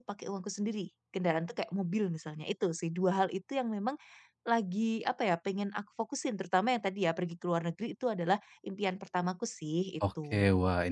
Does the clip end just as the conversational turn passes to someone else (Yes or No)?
Yes